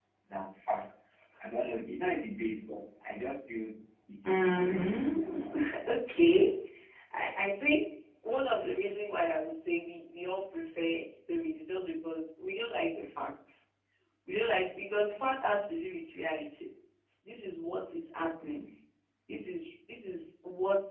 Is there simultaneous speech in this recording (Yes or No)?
Yes